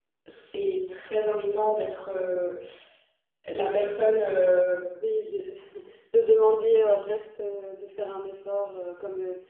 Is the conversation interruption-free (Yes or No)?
Yes